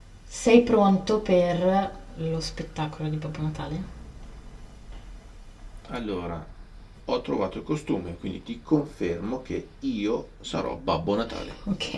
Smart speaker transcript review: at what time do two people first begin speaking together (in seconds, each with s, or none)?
none